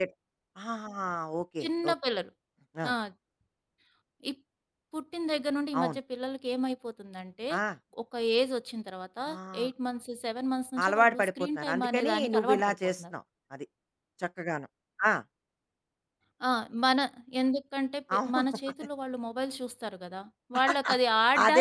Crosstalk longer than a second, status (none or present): present